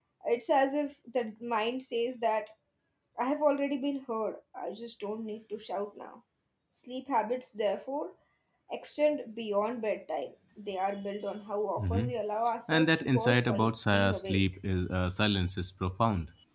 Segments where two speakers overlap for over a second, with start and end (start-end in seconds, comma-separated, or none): 12.7-14.4